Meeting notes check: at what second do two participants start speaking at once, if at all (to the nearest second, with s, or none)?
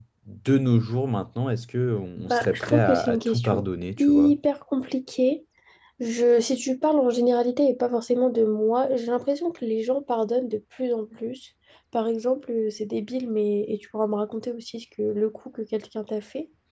2 s